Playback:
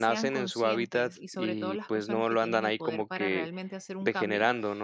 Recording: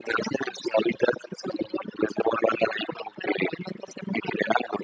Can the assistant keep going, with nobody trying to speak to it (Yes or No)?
Yes